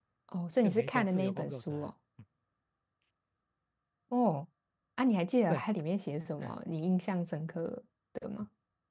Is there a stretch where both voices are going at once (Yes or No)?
Yes